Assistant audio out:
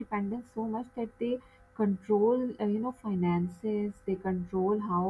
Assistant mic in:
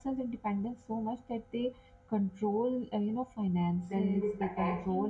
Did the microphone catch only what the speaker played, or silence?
No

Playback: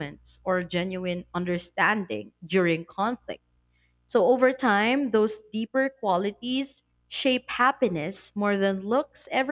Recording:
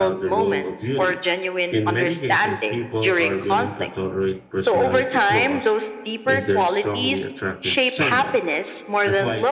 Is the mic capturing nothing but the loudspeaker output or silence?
No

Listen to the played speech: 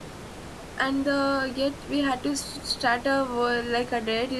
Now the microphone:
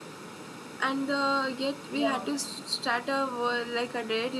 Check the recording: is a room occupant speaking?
Yes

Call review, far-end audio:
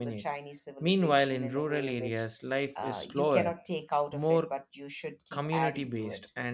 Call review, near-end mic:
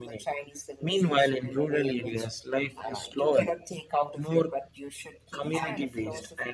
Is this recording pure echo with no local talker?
No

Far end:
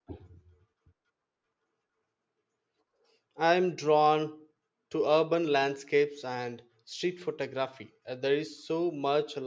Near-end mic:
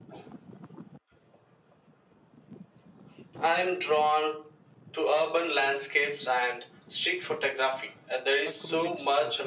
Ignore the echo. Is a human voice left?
Yes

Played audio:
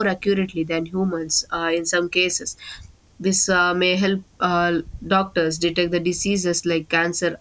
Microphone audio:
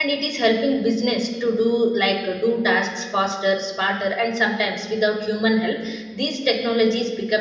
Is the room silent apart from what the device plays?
No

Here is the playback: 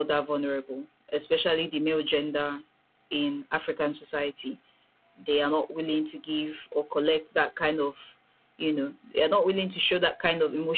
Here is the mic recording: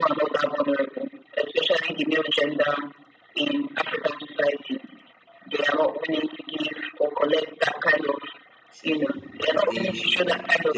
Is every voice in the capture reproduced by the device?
No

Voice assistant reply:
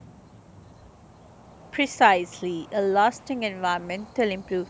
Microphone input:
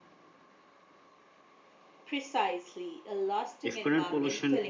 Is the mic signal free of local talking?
No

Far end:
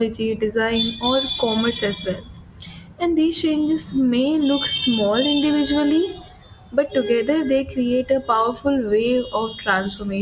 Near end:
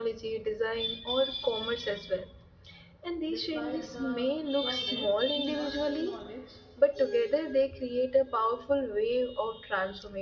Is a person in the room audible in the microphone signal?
Yes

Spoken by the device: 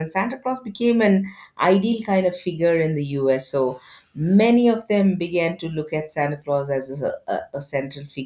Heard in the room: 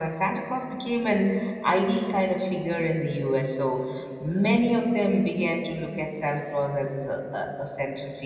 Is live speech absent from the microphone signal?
Yes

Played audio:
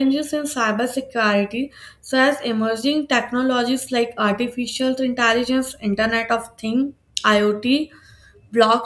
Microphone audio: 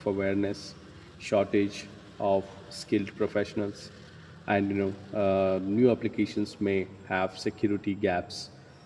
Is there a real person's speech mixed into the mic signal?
Yes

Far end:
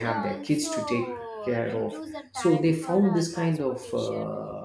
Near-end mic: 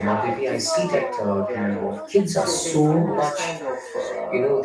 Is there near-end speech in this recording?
Yes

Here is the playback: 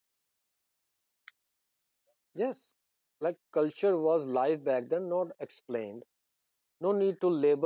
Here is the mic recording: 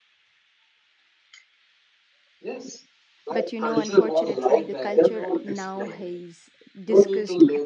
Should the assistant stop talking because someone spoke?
Yes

